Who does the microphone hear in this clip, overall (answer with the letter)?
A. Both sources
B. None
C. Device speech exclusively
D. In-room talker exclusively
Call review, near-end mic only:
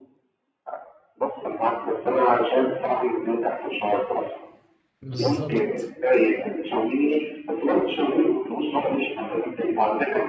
A